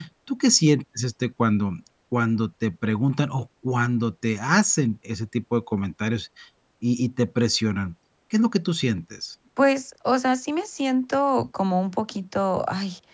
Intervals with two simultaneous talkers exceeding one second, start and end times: none

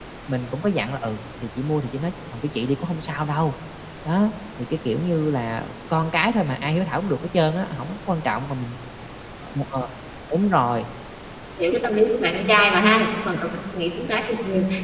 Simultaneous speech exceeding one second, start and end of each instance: none

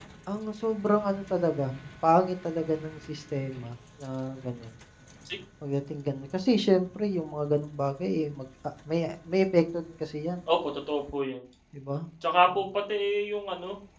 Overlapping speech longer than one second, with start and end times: none

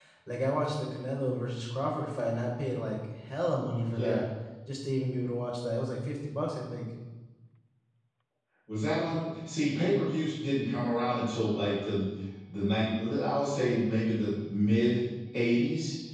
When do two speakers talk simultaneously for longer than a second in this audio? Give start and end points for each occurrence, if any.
none

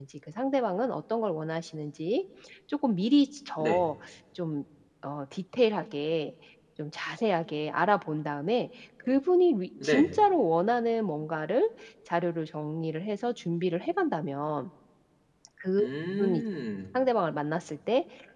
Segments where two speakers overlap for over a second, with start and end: none

